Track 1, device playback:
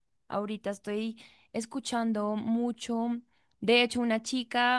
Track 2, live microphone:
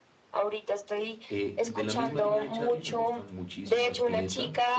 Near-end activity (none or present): present